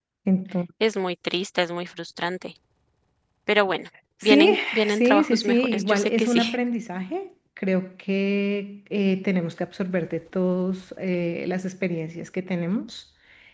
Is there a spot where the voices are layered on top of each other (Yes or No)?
Yes